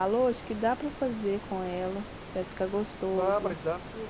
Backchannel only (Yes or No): No